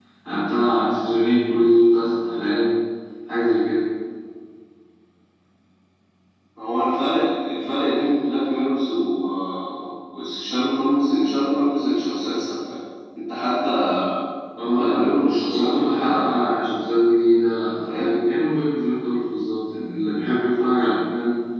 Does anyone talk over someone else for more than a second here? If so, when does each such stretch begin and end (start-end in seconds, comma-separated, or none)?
14.7-16.4